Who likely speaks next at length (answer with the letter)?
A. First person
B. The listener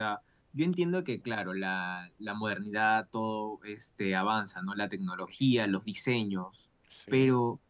A